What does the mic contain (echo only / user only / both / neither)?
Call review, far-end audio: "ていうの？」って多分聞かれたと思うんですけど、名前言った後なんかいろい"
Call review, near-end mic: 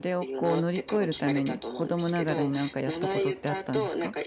both